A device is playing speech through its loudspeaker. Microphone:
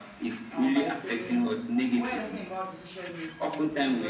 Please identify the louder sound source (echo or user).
echo